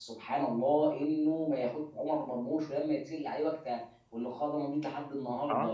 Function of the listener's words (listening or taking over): listening